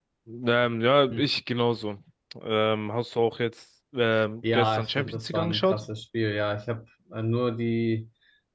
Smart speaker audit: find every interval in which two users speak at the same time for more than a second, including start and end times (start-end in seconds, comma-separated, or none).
4.5-5.8